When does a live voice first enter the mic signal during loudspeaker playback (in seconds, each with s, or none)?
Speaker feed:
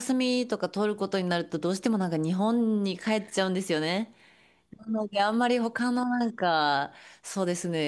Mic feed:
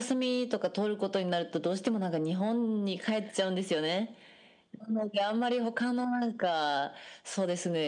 none